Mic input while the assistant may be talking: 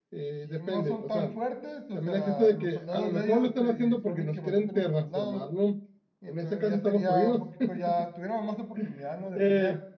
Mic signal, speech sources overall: both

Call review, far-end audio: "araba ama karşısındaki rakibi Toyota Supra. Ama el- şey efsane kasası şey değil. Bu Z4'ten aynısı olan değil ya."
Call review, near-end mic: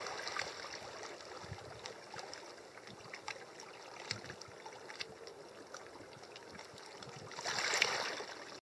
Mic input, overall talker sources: neither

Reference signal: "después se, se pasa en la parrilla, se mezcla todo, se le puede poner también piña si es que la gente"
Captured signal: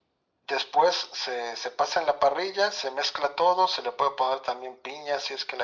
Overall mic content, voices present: echo only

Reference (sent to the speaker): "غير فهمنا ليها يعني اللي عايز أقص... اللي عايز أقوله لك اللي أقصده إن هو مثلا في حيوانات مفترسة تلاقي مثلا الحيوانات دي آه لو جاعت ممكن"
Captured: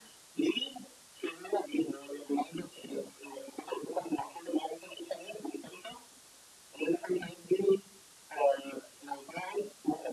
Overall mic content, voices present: echo only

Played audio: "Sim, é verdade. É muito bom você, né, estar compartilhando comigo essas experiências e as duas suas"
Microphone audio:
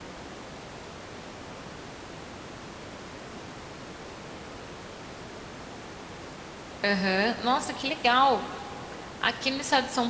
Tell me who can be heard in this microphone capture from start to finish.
user only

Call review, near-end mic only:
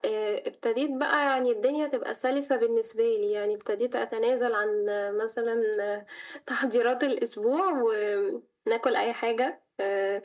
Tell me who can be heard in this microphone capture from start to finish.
echo only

